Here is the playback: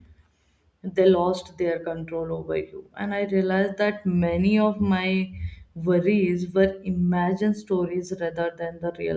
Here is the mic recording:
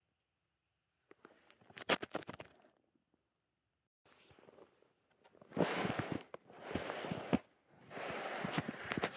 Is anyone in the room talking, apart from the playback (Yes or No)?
No